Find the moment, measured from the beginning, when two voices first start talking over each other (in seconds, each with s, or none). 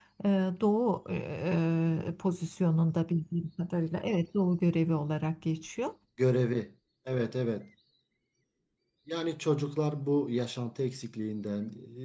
none